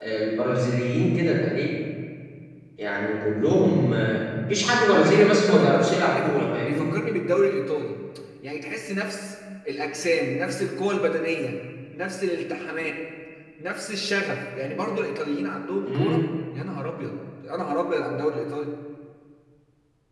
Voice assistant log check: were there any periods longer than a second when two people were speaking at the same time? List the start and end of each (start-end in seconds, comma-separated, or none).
4.9-6.9